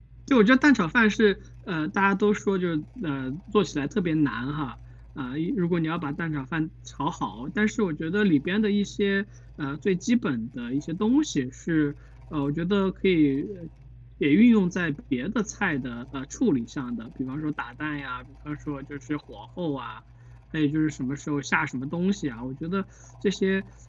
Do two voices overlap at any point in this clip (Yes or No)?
No